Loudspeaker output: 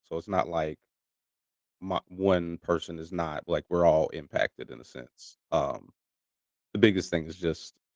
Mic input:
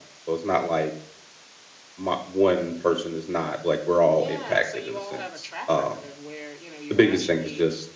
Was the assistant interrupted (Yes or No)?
Yes